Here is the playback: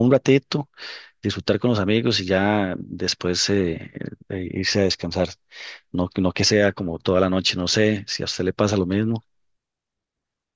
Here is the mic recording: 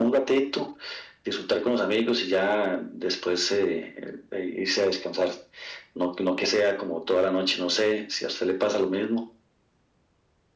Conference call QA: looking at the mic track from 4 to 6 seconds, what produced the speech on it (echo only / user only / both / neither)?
echo only